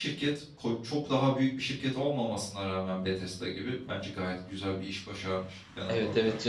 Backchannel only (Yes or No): No